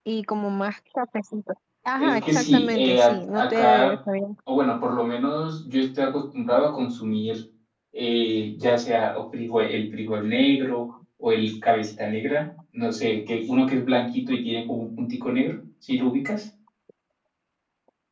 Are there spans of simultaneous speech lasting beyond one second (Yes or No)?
Yes